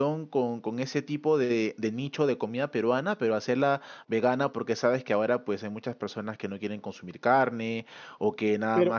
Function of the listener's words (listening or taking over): taking over